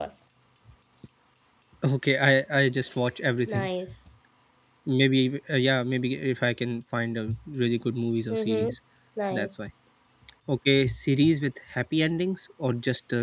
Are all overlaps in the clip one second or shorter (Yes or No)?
Yes